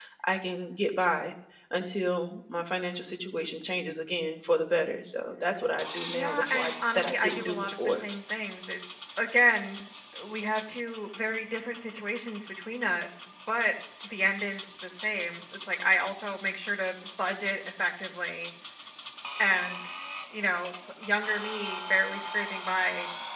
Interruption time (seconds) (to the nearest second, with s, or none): 6 s